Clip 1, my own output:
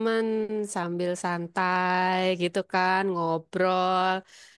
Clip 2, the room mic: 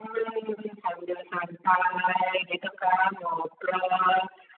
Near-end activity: none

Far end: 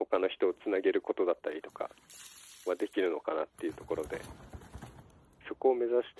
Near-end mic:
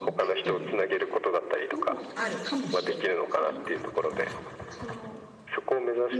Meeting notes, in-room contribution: present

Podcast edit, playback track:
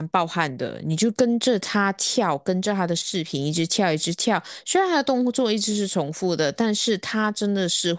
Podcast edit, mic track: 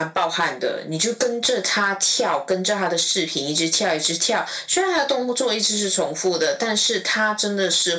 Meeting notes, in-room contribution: none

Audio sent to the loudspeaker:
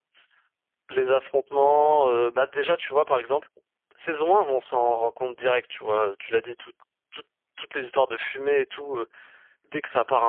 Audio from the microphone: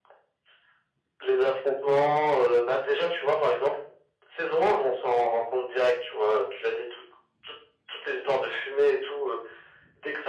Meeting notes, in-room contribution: none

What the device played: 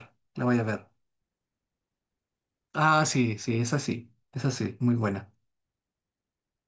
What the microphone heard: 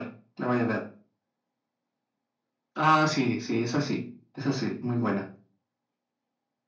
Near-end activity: none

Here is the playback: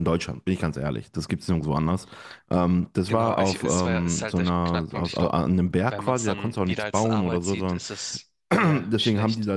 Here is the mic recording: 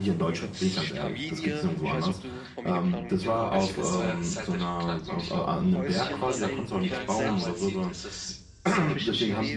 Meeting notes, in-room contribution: present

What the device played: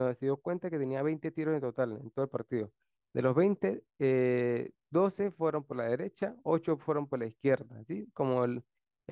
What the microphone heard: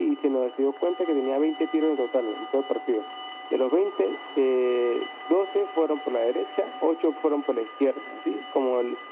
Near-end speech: none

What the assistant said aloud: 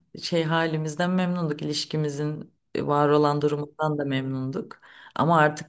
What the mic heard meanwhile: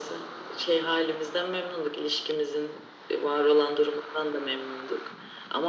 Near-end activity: none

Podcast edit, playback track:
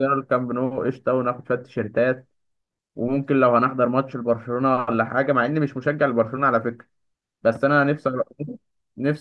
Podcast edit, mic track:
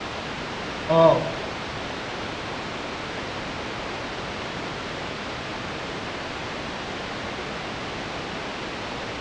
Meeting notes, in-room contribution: present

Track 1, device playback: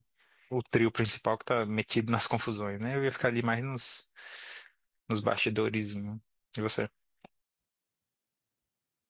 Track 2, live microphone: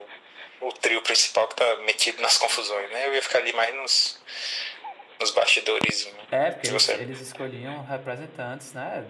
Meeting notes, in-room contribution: present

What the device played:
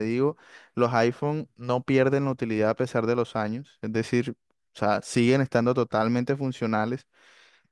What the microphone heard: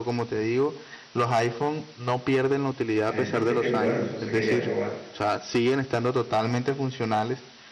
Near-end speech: present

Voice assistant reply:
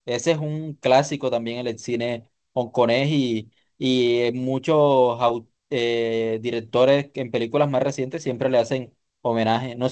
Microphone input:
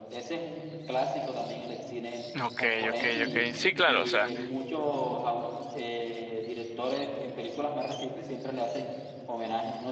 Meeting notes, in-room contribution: present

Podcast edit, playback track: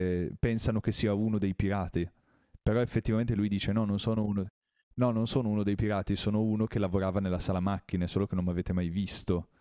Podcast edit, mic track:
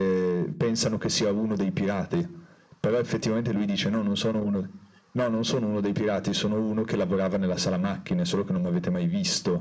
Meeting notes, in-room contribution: none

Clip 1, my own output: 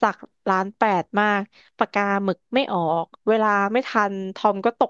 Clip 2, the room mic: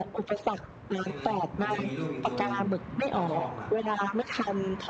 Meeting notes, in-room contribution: present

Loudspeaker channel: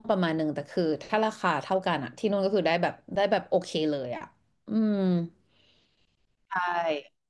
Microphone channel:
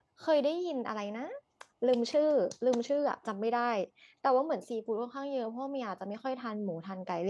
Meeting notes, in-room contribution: present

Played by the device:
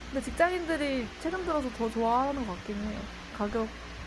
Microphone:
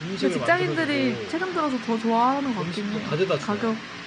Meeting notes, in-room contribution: present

